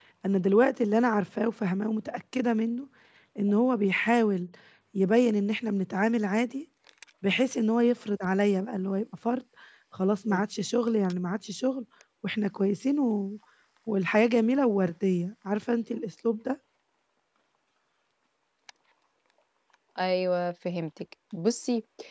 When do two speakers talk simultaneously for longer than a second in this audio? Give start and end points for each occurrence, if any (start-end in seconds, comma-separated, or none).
none